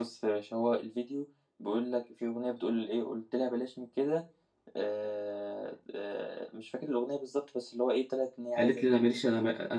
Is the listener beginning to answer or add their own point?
Yes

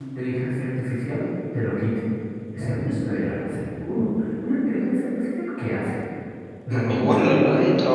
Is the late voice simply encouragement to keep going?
No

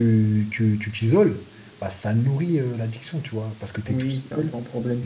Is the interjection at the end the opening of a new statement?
Yes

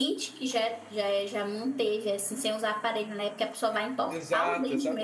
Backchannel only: No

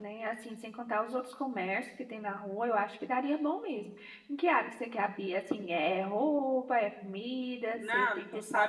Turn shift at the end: Yes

